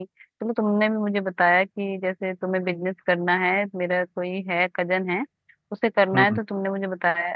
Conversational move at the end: listening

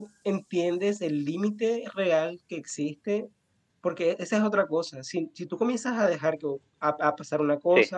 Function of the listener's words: listening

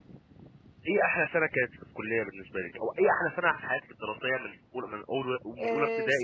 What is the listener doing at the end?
taking over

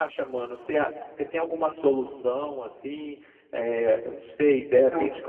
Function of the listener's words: listening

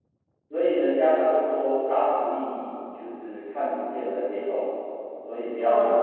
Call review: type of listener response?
taking over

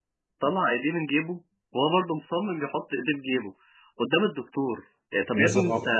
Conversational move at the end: taking over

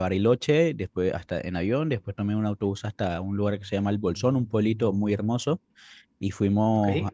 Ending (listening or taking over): listening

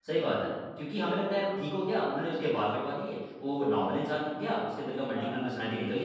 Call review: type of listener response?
listening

